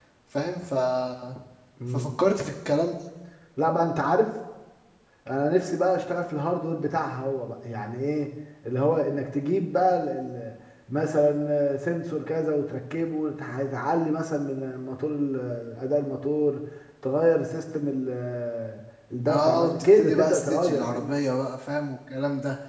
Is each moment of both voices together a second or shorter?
No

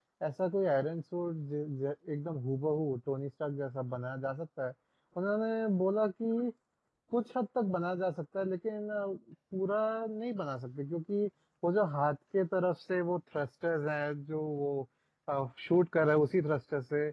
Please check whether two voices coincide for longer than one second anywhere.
No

